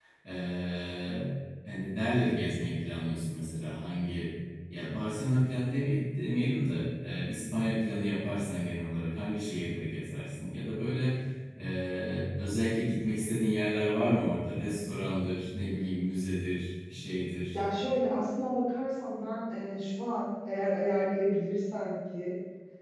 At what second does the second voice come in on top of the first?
none

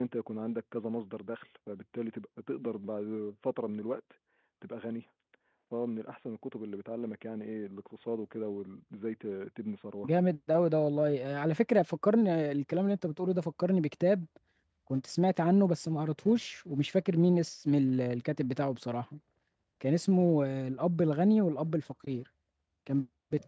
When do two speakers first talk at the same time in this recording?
none

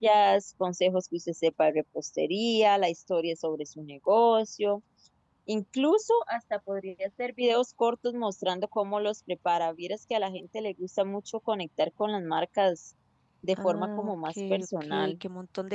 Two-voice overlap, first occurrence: 13.5 s

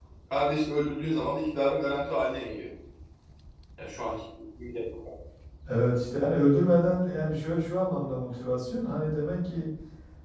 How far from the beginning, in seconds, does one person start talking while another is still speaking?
none

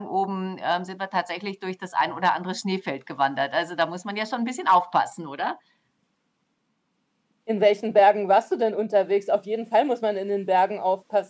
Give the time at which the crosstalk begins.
none

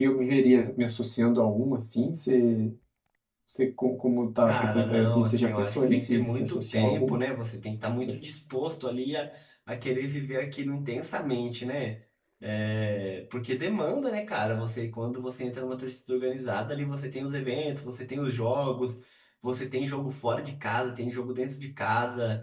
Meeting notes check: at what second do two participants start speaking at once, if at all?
4.5 s

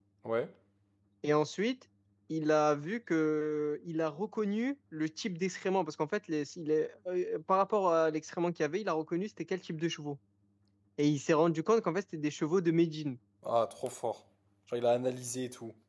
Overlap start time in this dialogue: none

